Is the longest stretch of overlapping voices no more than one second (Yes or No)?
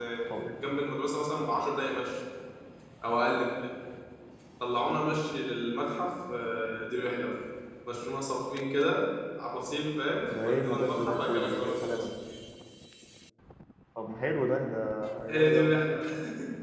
No